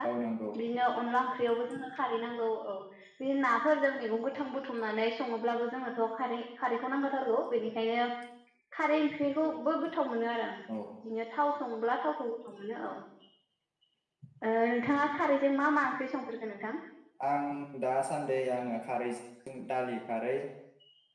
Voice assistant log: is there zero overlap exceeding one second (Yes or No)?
Yes